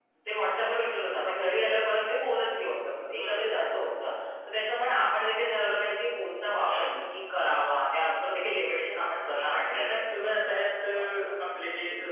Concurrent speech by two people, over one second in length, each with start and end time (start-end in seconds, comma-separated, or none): 9.4-11.1